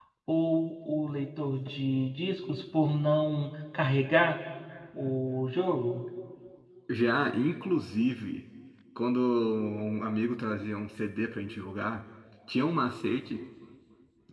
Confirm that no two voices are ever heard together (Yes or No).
Yes